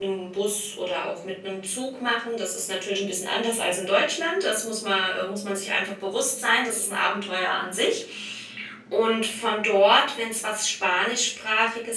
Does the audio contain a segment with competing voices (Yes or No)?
No